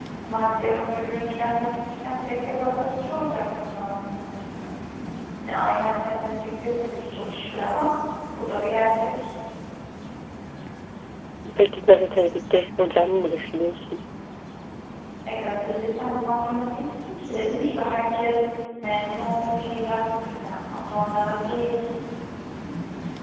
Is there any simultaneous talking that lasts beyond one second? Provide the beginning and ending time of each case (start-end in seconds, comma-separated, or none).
none